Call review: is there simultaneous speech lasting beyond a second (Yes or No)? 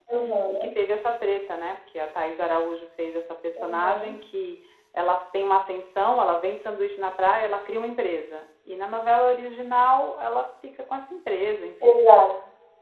No